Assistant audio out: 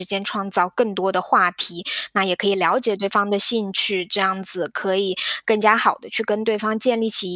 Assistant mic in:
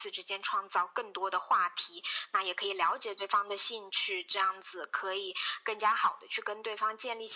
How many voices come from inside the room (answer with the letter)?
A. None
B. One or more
A